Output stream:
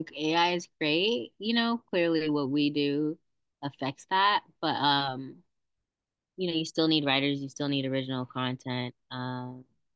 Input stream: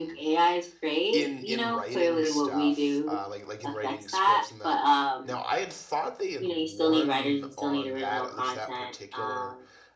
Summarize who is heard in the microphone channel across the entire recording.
both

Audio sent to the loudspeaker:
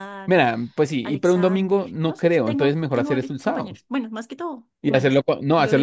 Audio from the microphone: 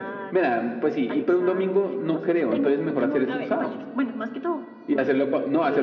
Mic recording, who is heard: both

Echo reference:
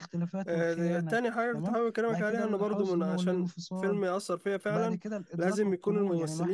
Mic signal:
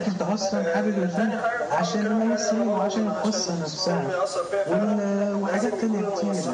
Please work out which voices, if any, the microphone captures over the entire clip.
both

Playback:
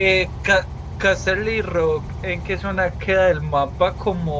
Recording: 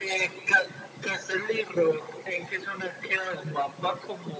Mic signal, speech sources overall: echo only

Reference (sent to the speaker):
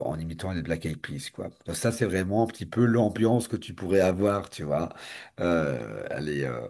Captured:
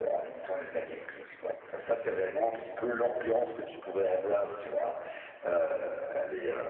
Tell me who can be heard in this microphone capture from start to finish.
echo only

